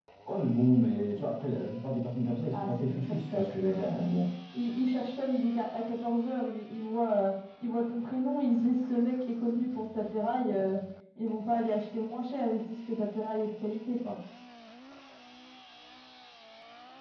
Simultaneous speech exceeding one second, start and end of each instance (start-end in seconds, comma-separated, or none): 2.5-4.1